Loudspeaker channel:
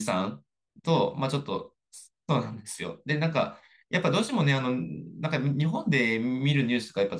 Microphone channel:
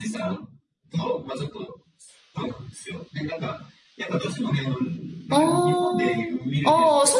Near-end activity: present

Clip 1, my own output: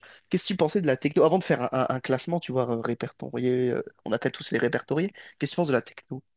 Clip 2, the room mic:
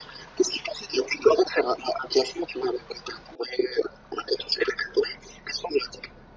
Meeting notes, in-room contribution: none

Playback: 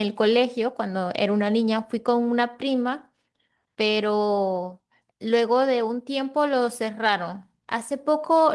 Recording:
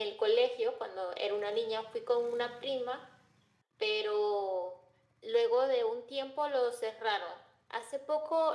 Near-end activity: none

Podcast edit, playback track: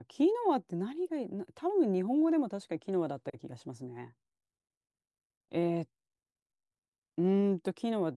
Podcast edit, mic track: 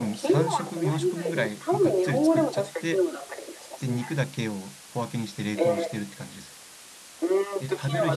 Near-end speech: present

